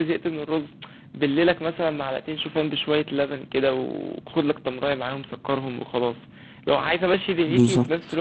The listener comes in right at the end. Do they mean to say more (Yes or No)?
No